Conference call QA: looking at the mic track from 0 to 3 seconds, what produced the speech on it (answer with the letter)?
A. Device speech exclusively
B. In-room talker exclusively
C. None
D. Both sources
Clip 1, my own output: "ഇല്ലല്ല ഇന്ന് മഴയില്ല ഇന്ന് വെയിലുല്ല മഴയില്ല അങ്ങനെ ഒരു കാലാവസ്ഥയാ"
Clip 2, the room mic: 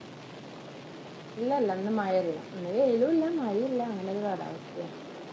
A